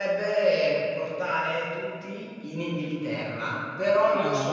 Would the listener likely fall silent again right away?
Yes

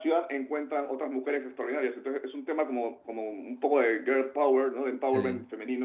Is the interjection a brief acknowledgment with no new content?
Yes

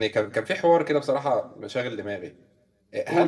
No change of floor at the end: Yes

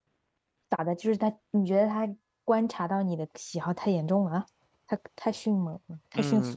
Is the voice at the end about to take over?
Yes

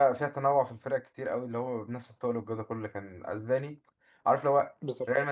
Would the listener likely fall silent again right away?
Yes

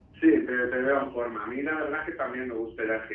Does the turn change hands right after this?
No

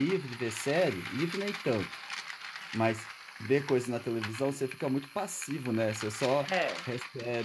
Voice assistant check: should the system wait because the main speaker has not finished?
Yes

